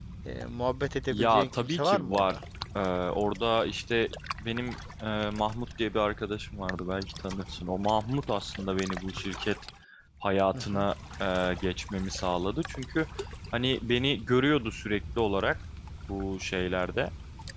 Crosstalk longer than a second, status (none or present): present